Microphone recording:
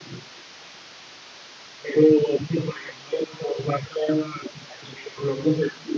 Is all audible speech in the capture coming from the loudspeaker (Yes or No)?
Yes